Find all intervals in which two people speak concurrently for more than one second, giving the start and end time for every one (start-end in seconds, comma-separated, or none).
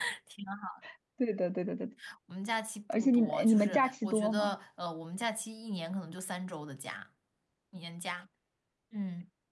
2.9-4.6